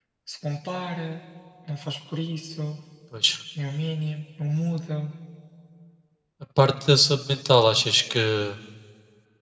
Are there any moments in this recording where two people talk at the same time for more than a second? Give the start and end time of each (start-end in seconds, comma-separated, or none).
none